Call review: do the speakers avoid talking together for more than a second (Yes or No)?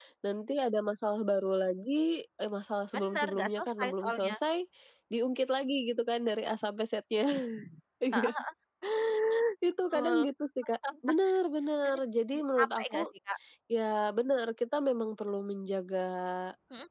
No